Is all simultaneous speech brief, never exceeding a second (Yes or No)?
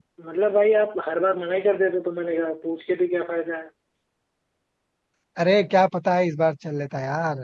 Yes